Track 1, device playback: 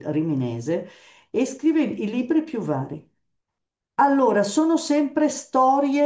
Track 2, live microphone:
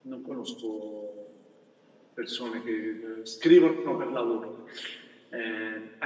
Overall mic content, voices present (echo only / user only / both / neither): user only